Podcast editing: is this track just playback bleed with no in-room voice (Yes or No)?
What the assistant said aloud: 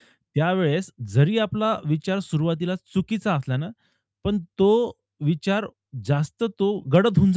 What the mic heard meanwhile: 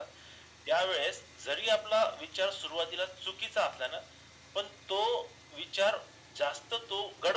Yes